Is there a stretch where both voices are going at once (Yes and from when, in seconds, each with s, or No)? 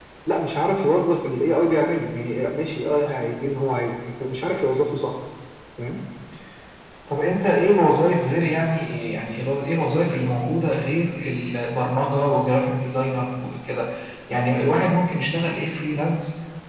No